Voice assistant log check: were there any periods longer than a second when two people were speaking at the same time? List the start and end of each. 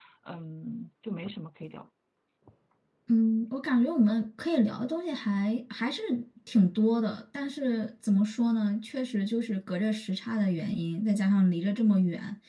none

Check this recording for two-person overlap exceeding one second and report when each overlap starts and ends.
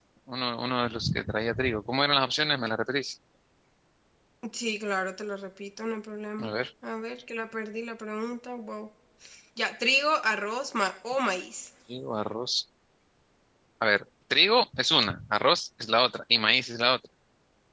none

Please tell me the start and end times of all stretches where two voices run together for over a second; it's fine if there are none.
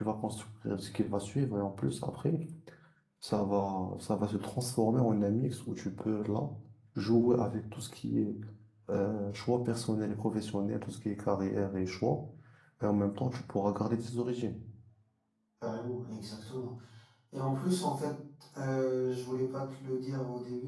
none

